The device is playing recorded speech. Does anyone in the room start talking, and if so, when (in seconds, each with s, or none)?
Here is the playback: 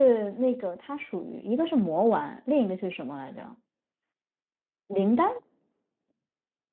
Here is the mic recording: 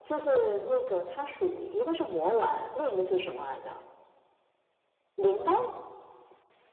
none